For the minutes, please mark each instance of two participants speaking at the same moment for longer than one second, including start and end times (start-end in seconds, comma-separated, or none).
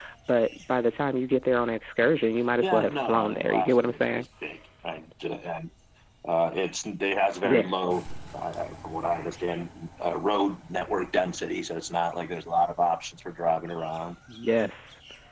2.6-4.2